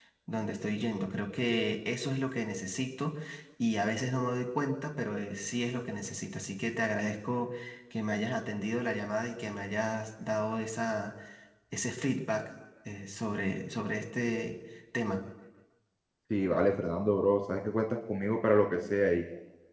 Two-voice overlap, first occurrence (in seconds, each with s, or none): none